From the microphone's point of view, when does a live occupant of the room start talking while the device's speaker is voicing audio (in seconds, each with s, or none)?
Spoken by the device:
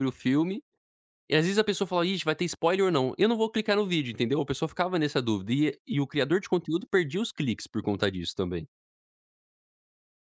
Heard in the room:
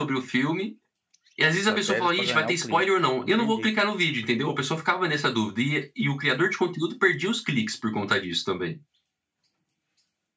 1.5 s